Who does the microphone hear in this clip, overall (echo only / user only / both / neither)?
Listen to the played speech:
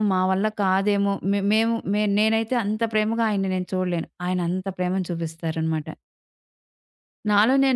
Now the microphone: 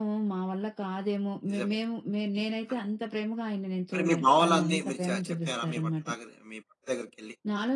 both